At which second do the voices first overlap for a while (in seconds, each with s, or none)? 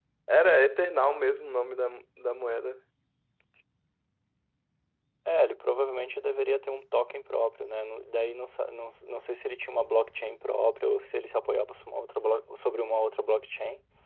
none